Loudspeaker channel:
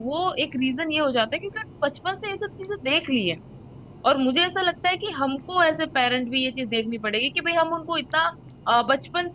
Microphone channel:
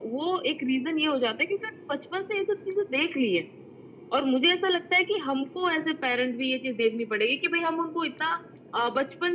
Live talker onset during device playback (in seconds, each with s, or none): none